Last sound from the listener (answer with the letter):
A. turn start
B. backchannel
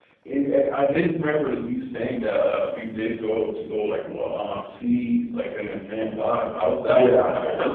A